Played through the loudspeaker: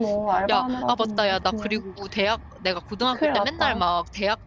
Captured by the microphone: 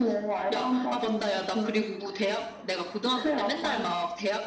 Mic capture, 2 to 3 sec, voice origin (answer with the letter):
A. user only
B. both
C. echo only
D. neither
C